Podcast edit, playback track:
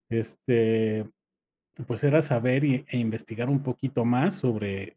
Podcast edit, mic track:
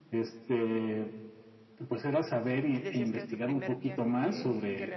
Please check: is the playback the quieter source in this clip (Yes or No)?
No